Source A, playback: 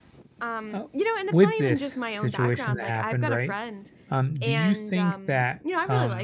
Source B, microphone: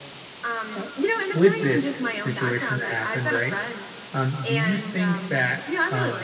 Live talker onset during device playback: none

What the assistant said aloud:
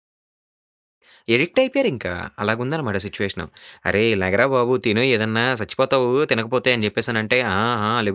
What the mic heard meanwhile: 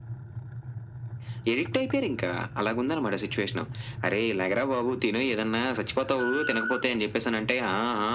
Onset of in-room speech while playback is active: none

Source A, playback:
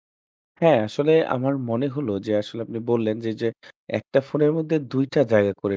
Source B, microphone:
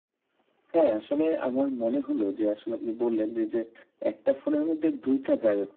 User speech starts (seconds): none

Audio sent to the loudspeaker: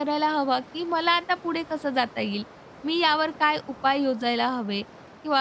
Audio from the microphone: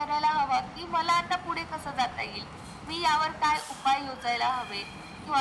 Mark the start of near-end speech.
none

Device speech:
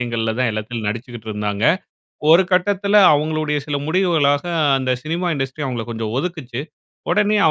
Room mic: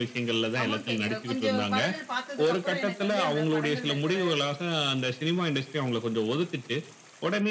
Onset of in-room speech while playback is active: 0.6 s

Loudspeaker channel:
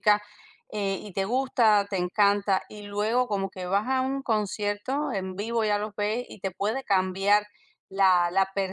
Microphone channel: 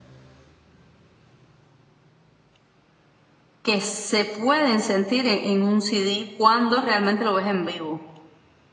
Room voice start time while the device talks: 3.6 s

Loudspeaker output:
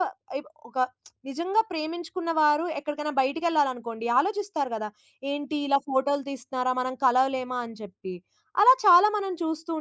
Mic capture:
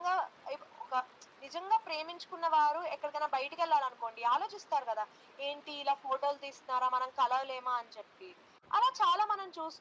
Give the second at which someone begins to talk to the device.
none

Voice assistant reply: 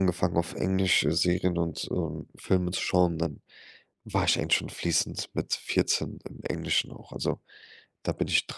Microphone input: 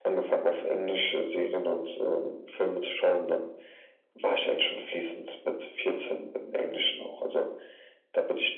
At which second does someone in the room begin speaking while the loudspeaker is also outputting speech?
none

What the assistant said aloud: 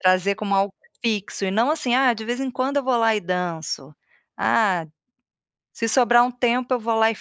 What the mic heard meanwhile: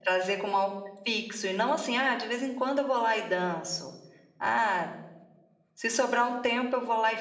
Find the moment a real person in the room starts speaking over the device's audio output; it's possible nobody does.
none

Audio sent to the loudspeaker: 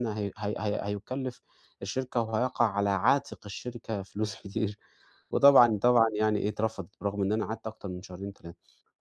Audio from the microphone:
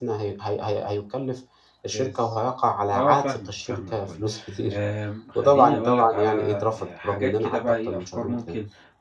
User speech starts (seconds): 1.9 s

